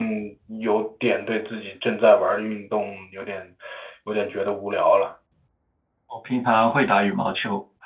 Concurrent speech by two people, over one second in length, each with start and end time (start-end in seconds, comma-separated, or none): none